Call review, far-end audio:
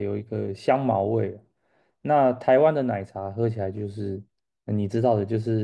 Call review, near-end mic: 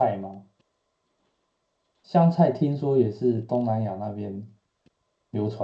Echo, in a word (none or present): none